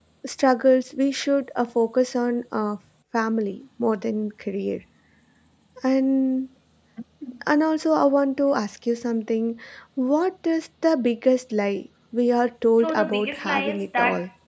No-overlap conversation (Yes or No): No